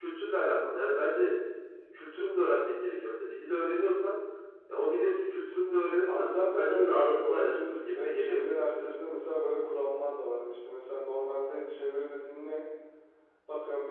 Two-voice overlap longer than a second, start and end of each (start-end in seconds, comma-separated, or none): 6.1-8.9